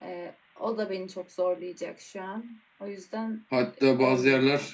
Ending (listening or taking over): taking over